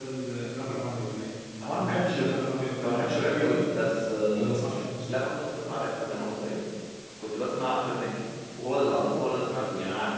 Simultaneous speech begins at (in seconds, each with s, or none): 1.8 s